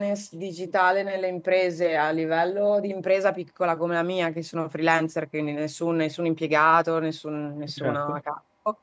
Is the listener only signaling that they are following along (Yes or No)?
Yes